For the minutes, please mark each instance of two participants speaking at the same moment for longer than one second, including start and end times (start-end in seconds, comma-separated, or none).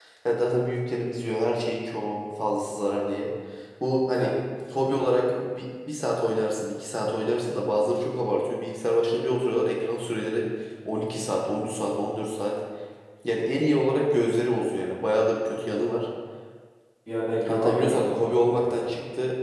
17.5-18.9